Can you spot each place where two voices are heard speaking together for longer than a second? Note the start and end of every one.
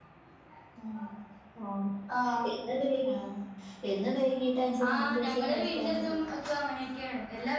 4.9-6.2

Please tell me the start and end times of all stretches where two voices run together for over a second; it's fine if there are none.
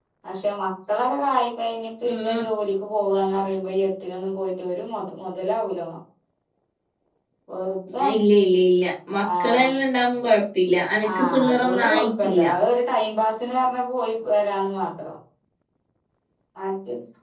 11.2-12.4

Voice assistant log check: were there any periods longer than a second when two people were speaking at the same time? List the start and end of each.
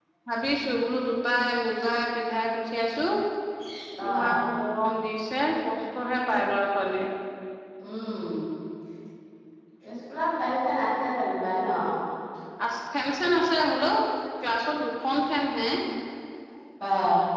none

